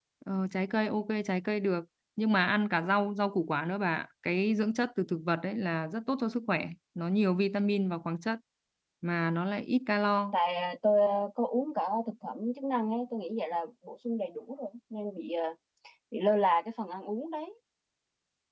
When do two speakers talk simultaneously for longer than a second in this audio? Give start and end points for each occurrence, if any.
none

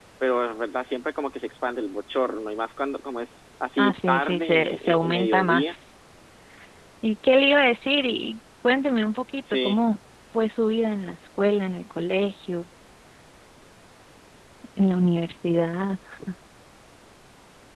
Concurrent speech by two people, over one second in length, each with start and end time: 3.8-5.8

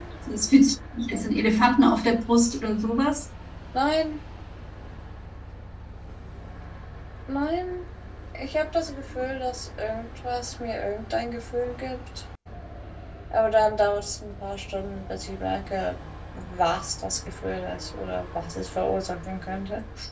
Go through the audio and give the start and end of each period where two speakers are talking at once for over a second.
none

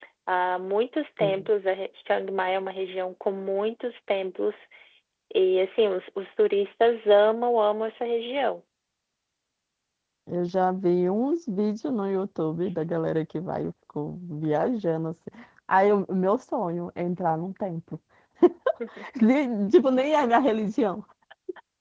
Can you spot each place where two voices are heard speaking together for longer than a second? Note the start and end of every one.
none

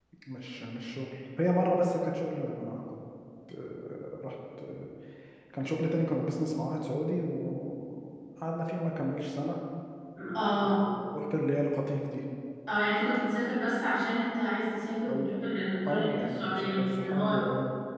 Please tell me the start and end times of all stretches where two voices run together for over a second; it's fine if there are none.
15.9-17.4

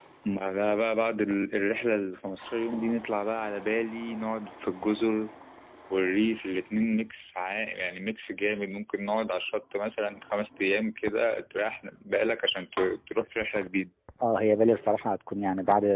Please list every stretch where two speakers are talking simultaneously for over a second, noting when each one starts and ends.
none

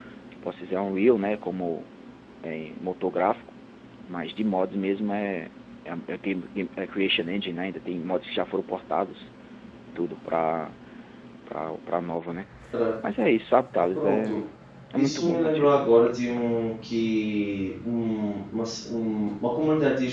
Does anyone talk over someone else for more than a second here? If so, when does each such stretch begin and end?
15.0-16.5

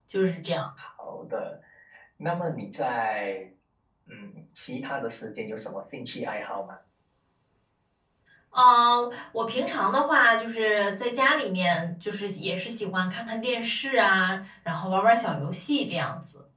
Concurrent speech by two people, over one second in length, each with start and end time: none

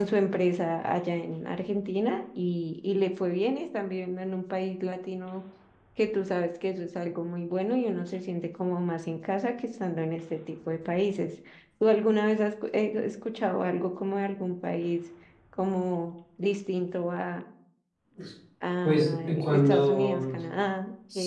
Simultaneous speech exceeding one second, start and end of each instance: 18.8-20.4

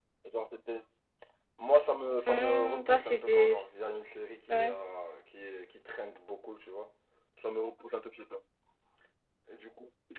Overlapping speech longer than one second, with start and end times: 2.3-3.5

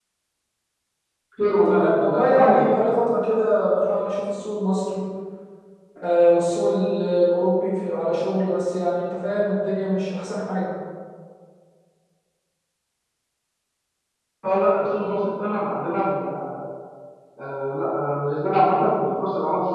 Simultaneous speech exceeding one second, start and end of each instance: 1.4-2.7

